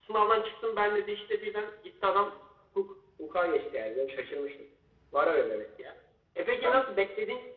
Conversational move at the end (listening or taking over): listening